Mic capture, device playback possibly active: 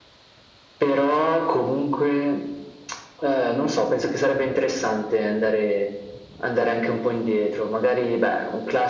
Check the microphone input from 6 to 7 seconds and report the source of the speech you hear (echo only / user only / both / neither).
echo only